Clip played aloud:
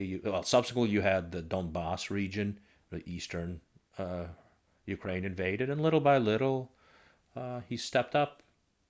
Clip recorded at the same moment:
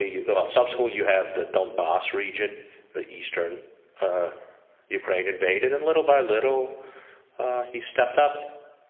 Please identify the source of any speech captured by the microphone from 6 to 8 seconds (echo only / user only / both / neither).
echo only